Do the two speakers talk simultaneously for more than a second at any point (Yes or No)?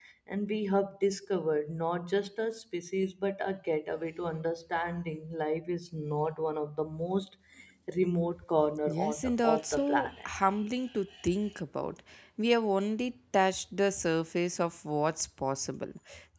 Yes